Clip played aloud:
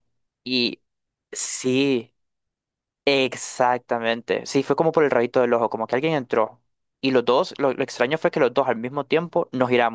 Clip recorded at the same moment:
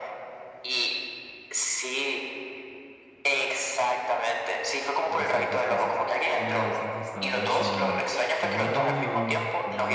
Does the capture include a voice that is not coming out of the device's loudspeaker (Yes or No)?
Yes